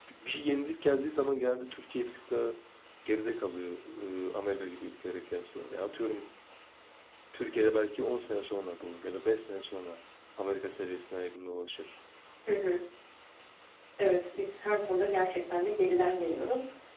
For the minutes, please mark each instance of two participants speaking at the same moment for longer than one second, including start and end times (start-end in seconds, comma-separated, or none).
none